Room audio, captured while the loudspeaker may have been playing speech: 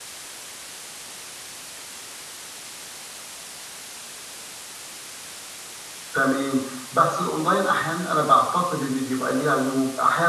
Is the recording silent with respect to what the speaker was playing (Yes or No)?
Yes